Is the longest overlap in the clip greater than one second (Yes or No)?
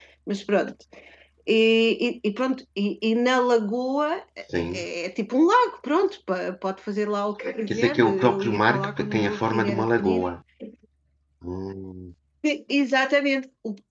Yes